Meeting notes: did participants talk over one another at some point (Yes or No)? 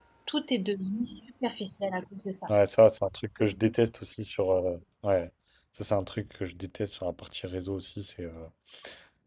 No